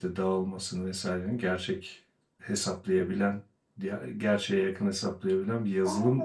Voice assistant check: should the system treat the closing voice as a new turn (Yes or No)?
Yes